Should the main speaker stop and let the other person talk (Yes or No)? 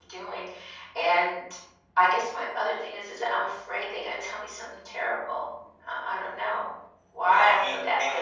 Yes